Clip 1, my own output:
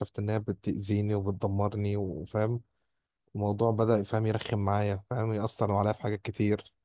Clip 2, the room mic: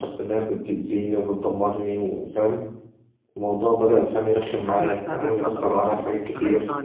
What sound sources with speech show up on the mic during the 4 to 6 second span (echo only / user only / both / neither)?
both